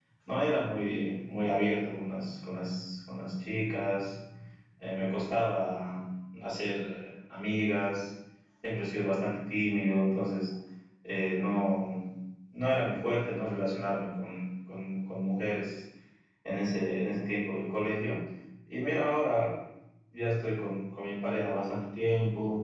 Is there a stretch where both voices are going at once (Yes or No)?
No